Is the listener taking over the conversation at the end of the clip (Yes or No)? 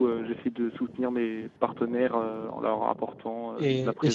Yes